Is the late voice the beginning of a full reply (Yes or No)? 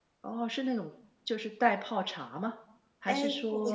Yes